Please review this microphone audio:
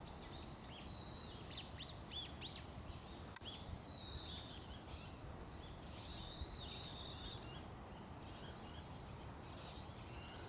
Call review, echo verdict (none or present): none